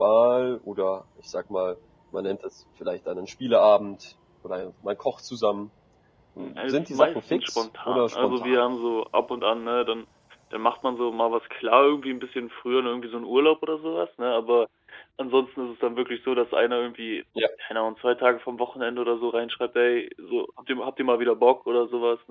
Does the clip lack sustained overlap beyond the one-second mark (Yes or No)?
No